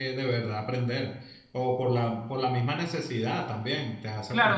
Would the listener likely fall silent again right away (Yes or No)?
No